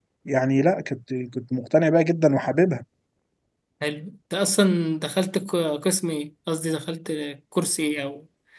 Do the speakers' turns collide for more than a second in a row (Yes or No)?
No